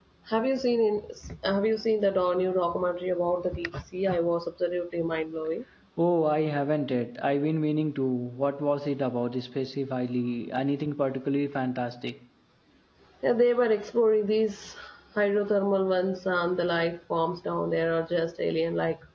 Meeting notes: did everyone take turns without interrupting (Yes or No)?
Yes